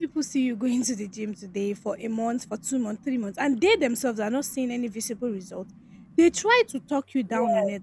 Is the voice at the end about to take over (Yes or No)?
No